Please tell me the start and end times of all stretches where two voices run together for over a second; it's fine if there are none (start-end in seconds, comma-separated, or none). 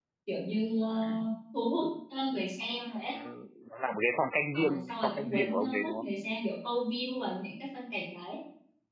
4.5-6.0